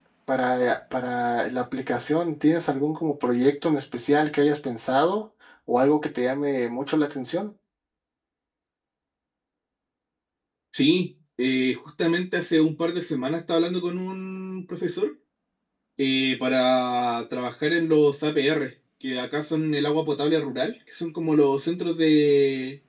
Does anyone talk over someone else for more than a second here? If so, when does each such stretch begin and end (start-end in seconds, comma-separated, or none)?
none